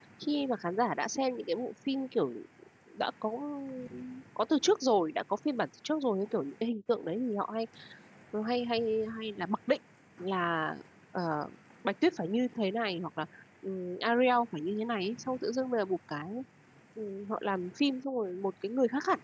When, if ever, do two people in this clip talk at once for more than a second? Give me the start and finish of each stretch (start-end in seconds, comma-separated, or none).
none